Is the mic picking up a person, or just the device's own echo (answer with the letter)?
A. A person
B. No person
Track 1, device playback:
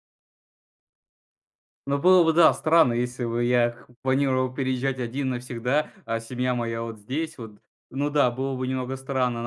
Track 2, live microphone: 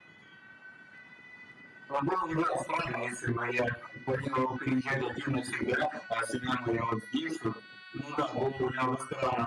B